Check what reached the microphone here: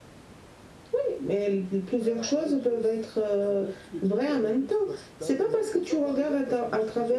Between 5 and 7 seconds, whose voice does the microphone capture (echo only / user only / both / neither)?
both